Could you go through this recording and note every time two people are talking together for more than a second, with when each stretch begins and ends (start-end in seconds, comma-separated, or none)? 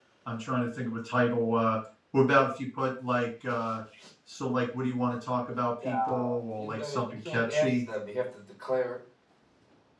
5.8-7.8